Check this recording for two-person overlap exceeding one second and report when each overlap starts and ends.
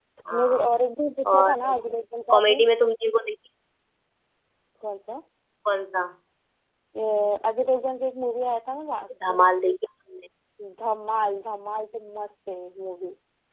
none

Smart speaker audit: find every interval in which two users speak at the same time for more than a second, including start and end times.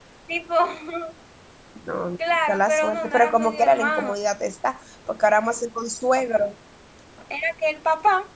2.5-4.1

